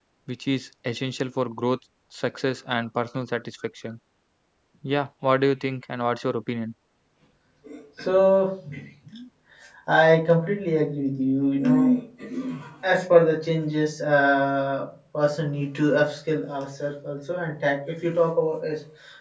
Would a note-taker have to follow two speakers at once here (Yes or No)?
No